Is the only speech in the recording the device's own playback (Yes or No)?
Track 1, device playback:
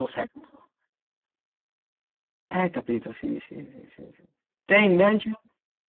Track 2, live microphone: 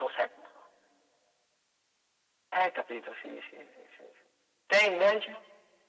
Yes